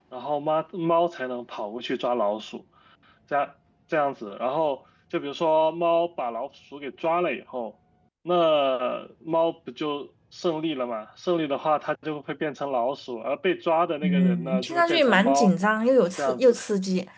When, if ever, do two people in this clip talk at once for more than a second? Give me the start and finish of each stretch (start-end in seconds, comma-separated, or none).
14.0-15.5